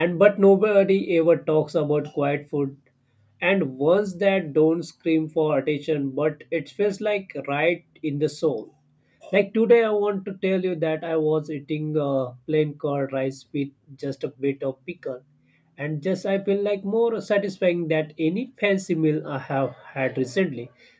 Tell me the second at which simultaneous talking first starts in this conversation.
none

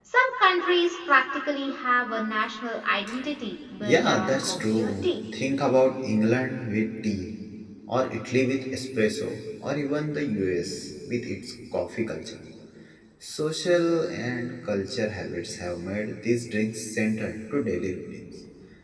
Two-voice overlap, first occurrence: 3.8 s

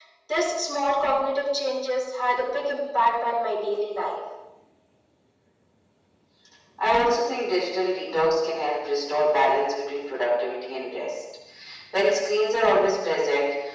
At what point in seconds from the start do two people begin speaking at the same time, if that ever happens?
none

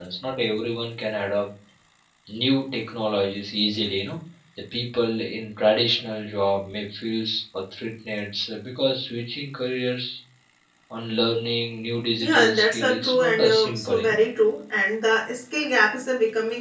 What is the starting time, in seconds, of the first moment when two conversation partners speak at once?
12.2 s

